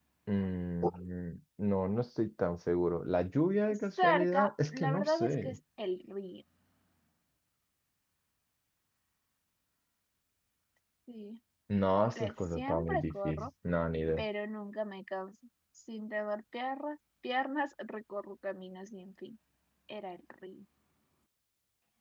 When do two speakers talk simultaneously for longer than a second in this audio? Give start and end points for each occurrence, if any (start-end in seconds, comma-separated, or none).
4.0-5.6, 12.2-13.5